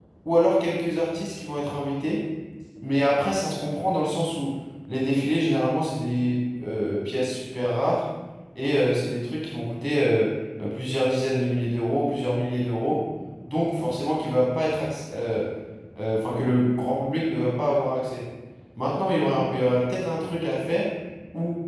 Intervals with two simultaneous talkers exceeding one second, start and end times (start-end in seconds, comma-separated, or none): none